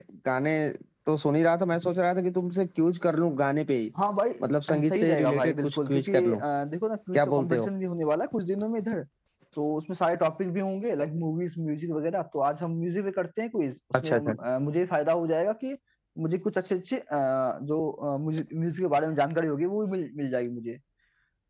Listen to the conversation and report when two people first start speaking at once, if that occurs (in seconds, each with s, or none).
4.9 s